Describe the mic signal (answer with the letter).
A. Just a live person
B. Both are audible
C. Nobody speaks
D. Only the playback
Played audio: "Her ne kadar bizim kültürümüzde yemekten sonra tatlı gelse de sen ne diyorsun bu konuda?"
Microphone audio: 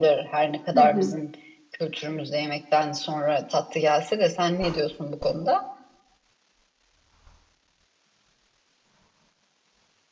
B